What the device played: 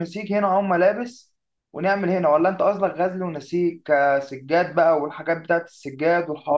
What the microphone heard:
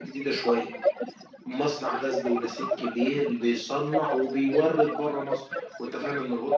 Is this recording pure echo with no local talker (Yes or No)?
No